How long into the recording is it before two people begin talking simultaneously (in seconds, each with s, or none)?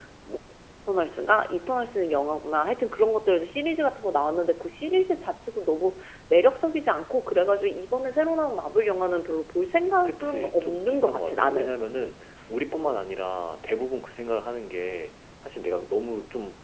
10.1 s